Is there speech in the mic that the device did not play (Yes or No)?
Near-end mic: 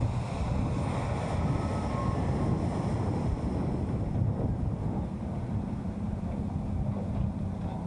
No